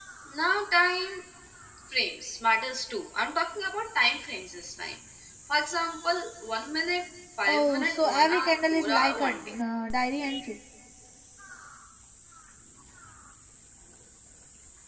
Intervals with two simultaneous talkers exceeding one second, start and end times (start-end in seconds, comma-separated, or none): 7.5-9.5